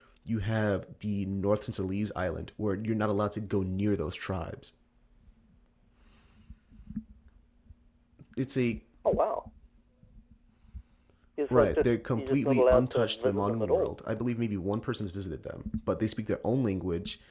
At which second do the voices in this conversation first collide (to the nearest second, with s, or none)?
12 s